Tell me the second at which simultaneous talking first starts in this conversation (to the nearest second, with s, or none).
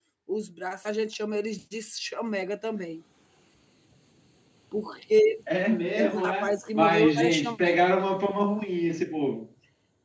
6 s